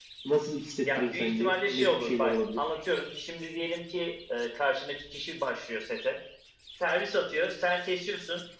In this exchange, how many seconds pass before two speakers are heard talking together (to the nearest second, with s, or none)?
1 s